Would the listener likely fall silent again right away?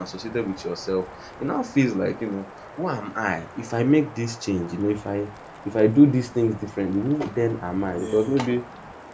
Yes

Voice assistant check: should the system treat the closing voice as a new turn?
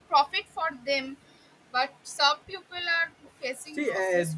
Yes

